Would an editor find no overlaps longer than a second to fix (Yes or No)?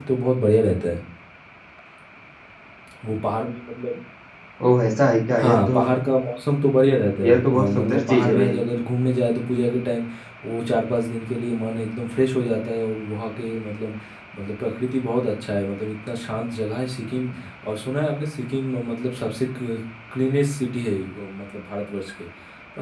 No